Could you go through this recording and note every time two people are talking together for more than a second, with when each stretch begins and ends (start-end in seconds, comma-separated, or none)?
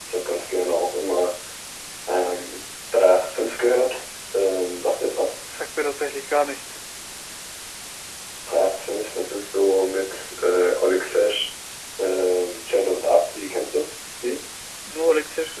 none